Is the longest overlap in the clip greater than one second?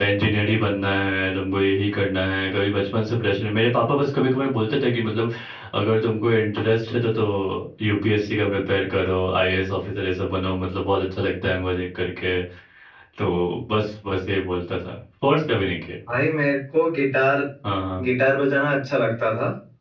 No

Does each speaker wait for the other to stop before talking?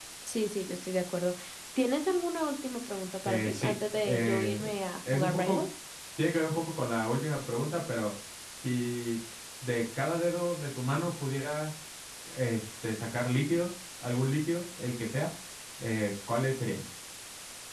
No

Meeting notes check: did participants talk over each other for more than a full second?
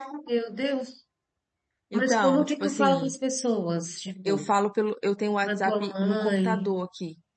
Yes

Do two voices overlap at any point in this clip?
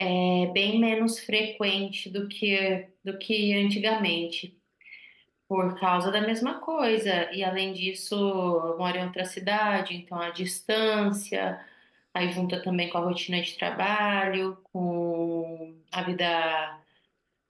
No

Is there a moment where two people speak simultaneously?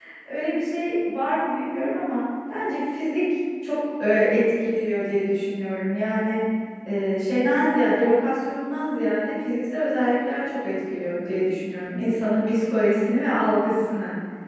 No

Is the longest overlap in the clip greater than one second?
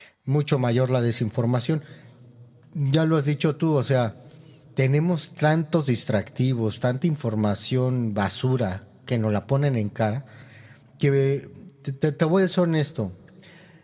No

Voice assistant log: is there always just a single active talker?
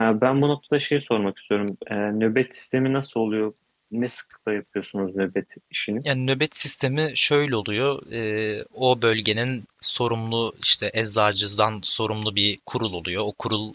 Yes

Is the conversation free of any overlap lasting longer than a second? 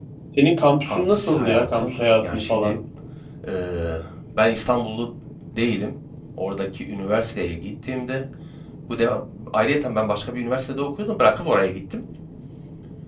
No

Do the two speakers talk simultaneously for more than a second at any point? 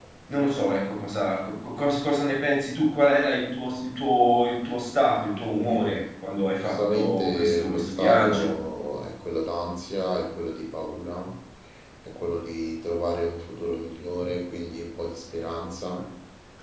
Yes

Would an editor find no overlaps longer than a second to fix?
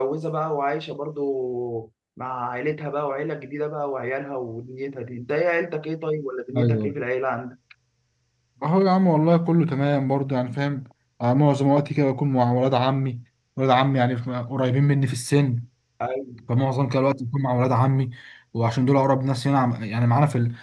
Yes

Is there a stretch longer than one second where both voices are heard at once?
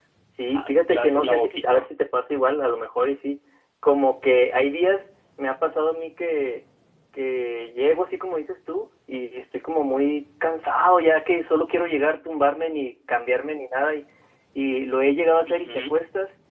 Yes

